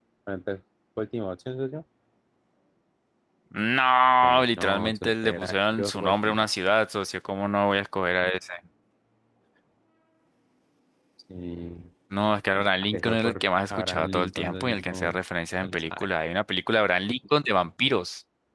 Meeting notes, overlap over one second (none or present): present